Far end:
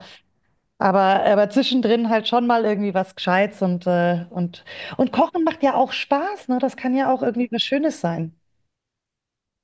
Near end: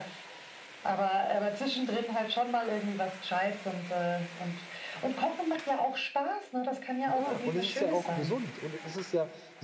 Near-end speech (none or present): present